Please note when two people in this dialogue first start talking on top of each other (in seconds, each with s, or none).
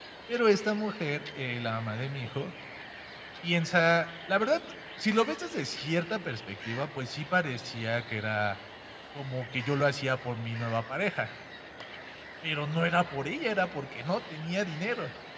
none